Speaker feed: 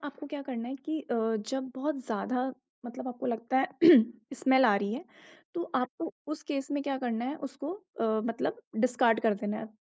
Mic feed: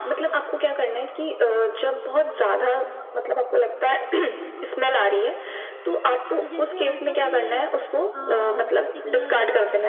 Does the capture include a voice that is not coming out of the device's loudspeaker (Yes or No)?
Yes